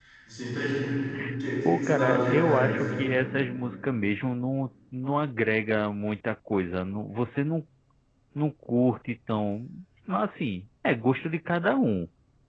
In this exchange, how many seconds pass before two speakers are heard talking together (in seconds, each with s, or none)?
1.6 s